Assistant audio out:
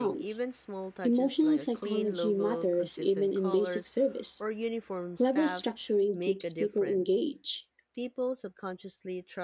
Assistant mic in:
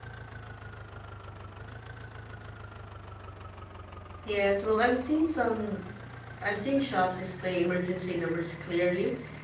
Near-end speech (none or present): present